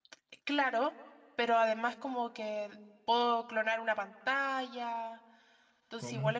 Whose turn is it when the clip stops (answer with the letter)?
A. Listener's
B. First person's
B